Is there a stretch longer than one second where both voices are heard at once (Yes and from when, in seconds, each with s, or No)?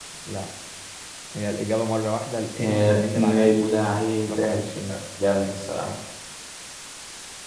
Yes, from 2.6 s